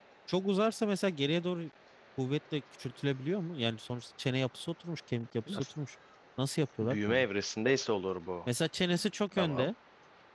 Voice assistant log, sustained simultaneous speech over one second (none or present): none